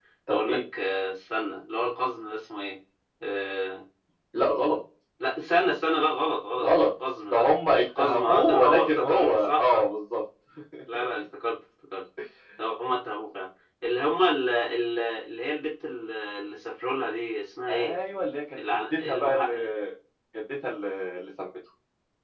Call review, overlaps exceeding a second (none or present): present